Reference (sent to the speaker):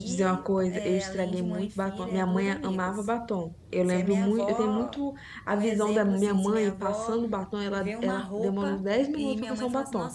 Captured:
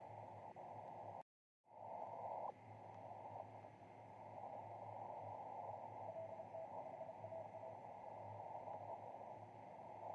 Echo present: No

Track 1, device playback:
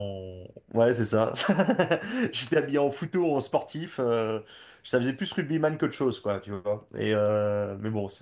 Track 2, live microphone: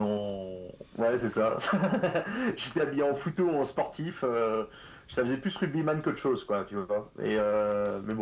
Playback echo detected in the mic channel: Yes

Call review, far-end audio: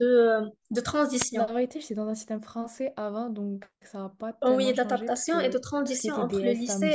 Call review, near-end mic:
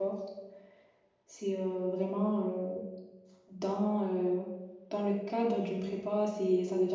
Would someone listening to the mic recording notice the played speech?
No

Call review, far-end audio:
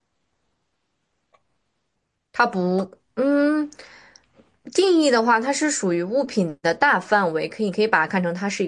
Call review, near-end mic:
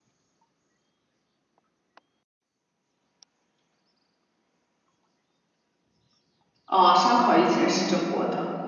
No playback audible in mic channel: Yes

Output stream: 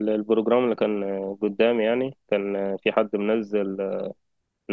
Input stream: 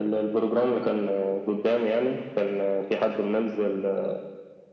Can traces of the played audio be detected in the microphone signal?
Yes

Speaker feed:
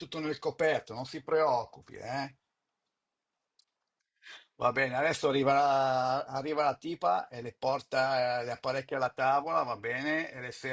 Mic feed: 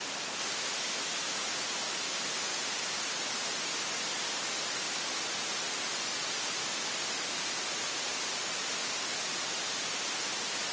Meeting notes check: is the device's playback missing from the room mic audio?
Yes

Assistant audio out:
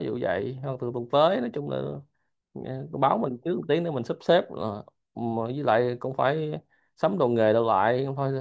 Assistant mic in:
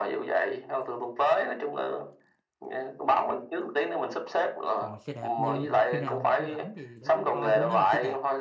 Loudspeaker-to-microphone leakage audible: Yes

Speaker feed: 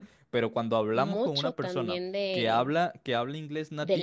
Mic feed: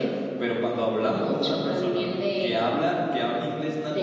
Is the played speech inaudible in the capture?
No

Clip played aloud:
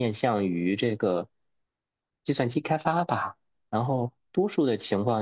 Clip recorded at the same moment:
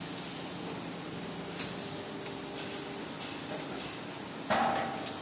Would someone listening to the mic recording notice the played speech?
No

